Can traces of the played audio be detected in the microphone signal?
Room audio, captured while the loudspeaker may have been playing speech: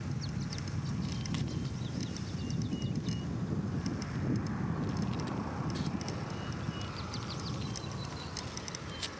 No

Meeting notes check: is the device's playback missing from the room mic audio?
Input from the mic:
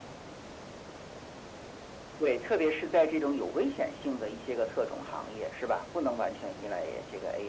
No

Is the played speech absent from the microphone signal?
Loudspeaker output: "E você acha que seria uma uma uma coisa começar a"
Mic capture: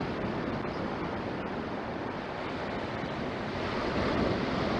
Yes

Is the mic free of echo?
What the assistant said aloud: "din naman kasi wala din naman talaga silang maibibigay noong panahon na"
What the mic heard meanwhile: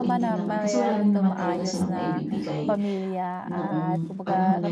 No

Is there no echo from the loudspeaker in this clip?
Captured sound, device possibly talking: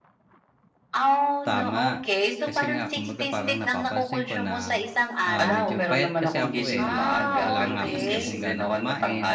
No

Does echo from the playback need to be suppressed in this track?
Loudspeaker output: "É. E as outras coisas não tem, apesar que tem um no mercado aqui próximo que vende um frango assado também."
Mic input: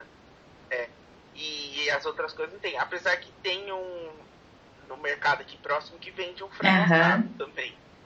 Yes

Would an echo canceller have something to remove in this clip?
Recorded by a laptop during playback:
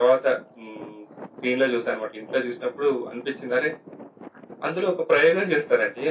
Yes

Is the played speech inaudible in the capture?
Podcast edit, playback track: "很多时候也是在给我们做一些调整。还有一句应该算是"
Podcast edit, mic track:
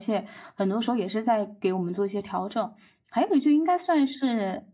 No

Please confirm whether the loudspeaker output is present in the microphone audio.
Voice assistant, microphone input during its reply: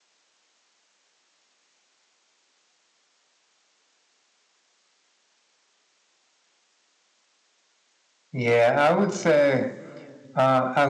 No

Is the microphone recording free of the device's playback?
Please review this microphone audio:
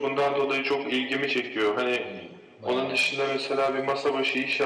No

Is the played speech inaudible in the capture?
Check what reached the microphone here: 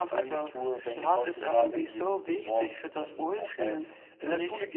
No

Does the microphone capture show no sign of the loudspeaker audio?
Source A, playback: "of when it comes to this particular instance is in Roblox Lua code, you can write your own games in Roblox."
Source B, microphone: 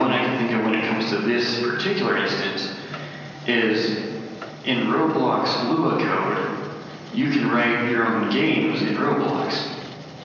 No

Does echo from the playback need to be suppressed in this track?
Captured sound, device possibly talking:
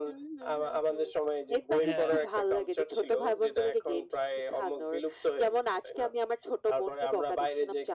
Yes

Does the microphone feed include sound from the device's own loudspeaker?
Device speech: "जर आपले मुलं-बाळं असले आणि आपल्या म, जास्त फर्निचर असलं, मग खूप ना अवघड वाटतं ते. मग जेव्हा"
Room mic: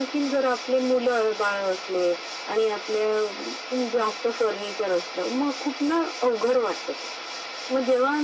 Yes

